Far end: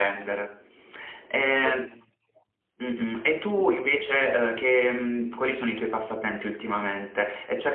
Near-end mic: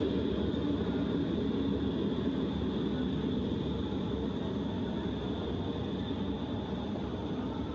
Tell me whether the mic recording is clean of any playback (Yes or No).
Yes